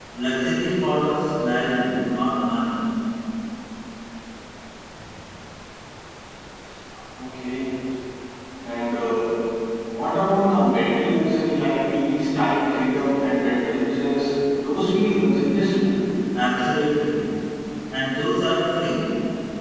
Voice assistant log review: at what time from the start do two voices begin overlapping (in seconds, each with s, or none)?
none